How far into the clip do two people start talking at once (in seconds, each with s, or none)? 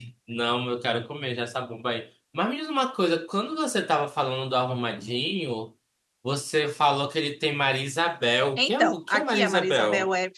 8.6 s